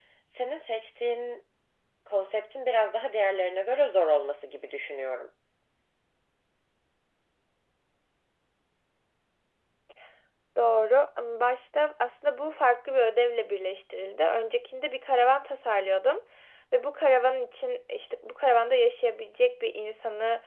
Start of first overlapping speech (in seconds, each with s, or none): none